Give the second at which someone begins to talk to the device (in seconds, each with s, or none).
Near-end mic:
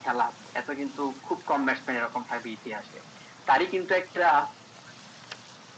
none